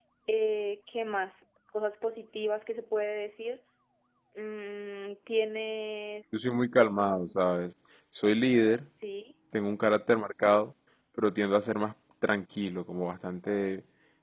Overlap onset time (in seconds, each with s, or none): none